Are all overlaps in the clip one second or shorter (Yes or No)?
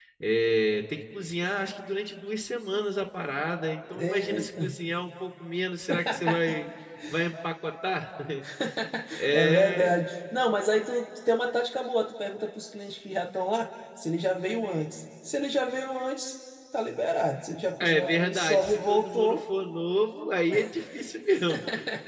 No